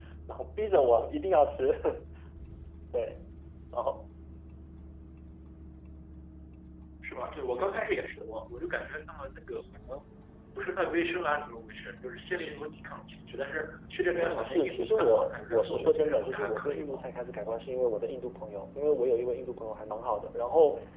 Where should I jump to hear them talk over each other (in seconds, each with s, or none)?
14.2 s